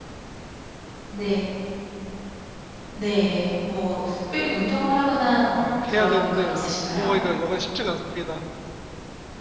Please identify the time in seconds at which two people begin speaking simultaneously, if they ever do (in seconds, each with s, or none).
5.6 s